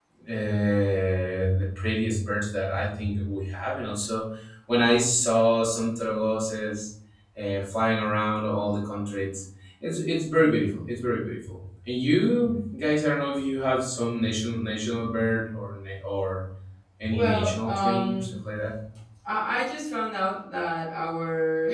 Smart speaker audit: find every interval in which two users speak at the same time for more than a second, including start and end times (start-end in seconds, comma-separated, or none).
17.1-18.3